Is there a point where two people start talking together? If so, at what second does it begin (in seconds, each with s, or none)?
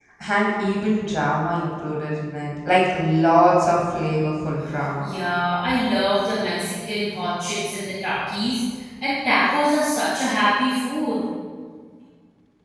none